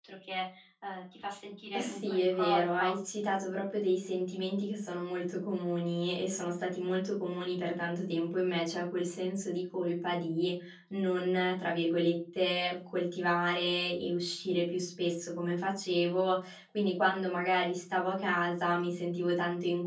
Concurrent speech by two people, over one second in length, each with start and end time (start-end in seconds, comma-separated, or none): 1.7-2.9